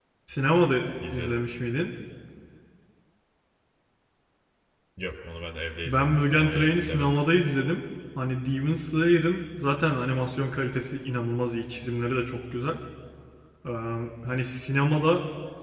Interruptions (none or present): present